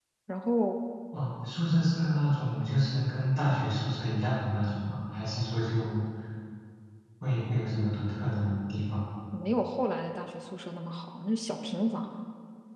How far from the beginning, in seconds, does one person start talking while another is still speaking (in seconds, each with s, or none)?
none